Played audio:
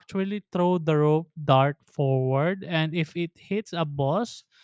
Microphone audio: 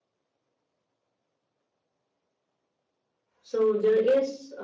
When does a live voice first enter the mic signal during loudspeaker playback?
3.4 s

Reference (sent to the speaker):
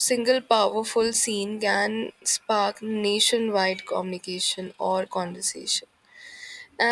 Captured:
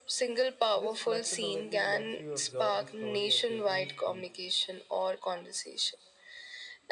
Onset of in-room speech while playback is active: 0.7 s

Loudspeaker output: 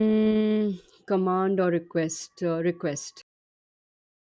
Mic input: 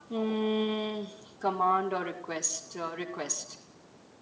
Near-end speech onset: none

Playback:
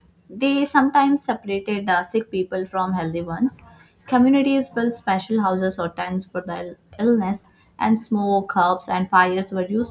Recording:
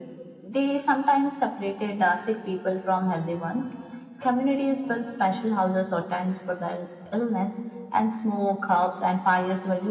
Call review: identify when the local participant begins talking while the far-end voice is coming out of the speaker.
none

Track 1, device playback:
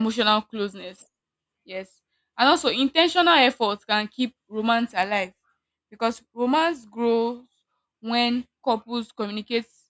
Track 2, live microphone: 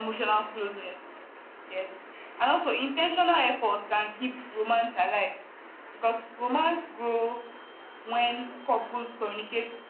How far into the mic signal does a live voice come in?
none

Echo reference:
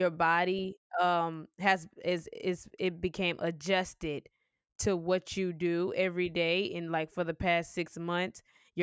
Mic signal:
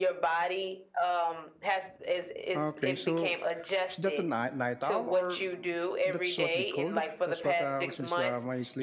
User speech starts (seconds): 2.5 s

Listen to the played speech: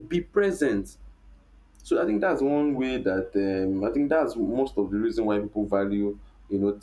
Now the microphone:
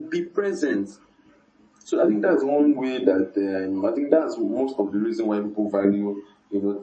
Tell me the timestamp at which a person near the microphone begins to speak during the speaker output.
none

